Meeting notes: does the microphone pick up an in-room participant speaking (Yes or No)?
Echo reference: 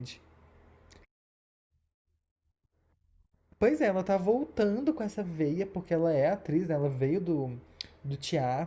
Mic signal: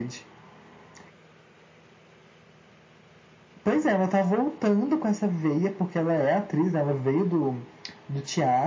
No